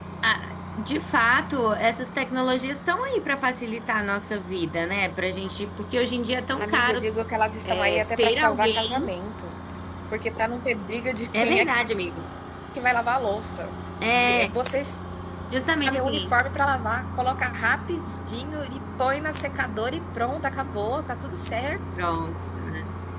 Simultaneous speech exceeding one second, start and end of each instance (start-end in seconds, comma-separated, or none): 7.6-9.1